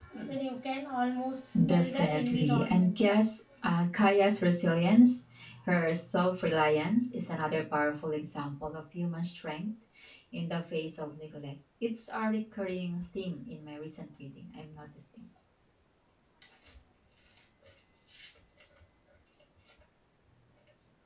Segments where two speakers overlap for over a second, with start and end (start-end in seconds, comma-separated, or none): 1.6-2.9